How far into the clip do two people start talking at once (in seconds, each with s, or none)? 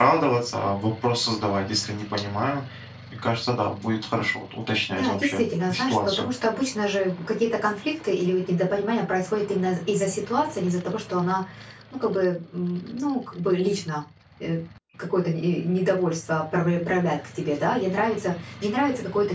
4.9 s